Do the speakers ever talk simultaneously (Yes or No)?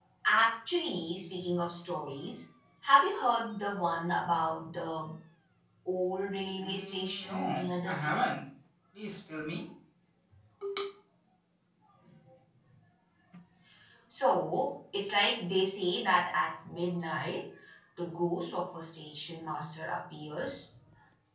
Yes